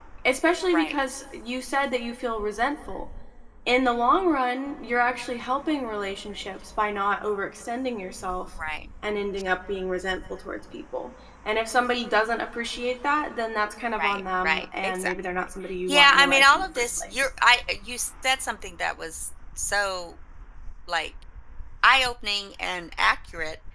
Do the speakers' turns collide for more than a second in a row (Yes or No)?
Yes